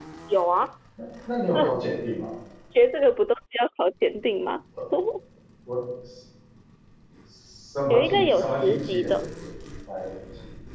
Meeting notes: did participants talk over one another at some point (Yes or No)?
Yes